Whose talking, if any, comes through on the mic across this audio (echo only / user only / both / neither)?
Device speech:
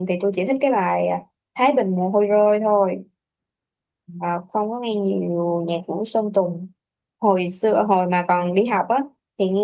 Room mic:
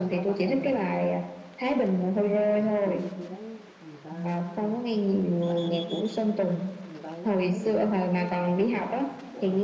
both